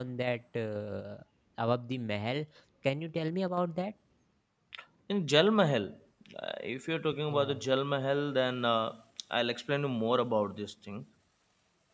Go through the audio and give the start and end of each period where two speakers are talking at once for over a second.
none

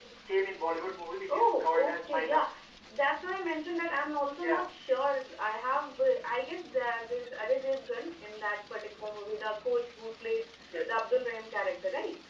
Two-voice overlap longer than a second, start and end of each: 1.3-2.5

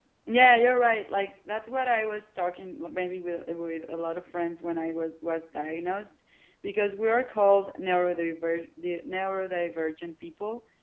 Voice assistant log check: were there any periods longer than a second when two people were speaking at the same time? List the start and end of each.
none

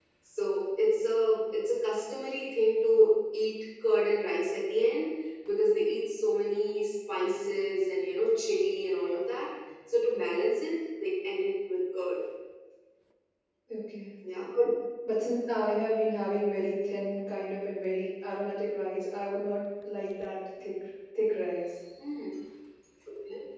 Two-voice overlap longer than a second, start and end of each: none

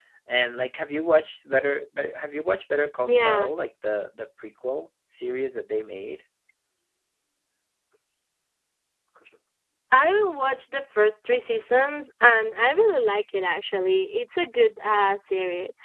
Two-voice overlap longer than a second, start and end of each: none

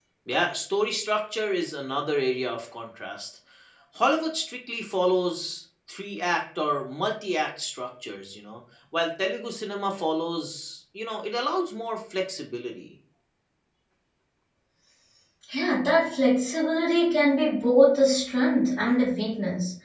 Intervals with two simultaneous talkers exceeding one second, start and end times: none

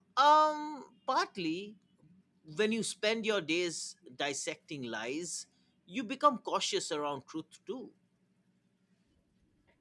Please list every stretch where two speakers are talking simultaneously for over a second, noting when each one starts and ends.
none

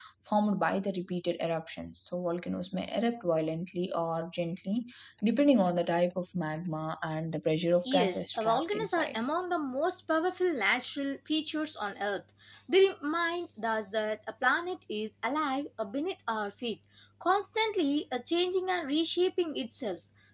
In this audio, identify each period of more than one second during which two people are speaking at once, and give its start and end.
7.8-9.2

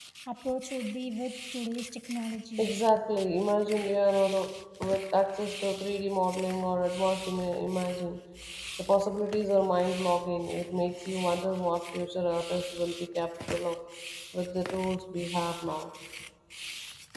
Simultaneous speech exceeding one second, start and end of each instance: none

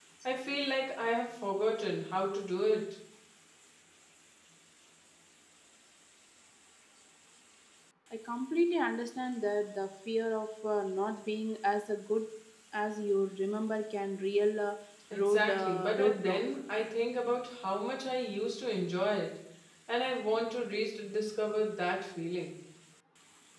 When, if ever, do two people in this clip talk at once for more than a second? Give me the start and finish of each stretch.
15.1-16.4

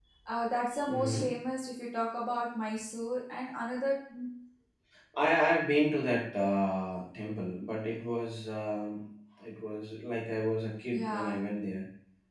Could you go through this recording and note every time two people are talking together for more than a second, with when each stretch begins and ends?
none

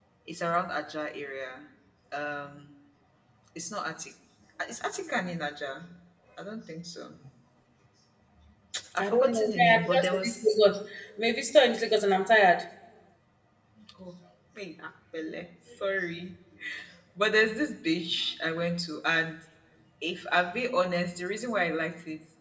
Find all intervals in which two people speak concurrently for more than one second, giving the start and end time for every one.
9.0-10.5

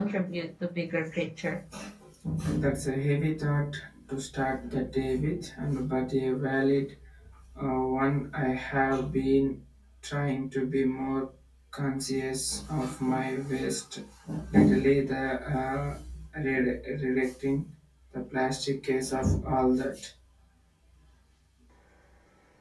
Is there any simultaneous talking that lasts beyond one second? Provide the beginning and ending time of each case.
none

